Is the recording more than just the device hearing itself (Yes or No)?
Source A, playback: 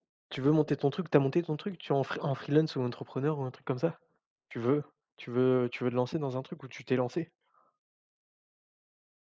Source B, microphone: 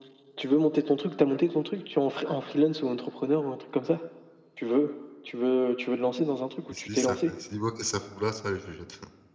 Yes